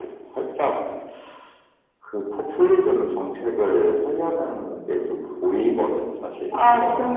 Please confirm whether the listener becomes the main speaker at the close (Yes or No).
Yes